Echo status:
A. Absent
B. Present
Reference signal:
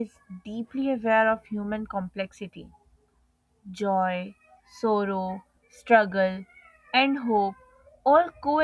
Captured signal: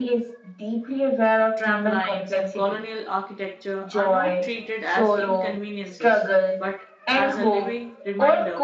B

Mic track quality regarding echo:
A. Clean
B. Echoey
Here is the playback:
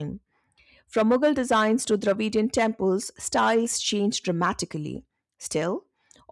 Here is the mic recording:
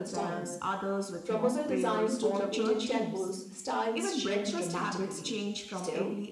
B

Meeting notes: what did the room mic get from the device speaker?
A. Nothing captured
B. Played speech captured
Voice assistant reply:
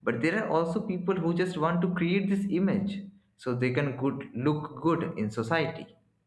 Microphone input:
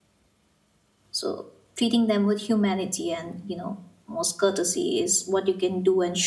A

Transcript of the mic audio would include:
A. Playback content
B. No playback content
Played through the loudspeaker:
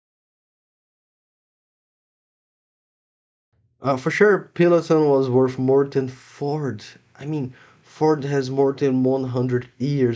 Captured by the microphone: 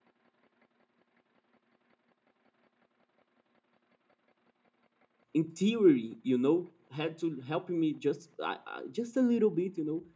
B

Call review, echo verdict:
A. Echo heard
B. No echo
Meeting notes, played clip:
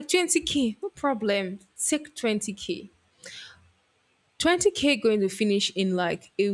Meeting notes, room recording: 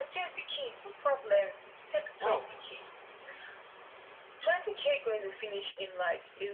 A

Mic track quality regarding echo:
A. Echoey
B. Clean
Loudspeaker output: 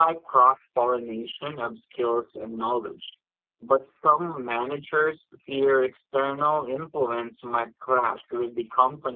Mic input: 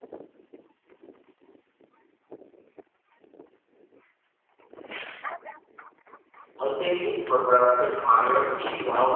B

